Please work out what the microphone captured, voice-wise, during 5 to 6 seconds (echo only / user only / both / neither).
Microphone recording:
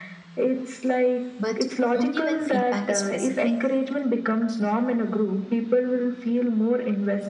echo only